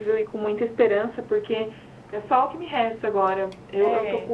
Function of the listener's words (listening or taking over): listening